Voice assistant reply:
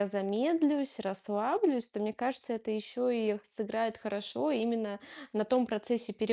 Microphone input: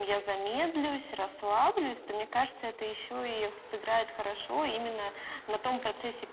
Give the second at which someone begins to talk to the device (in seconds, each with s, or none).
none